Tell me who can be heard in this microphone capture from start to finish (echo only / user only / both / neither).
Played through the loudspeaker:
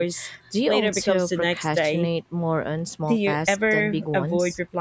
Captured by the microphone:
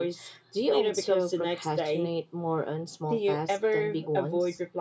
echo only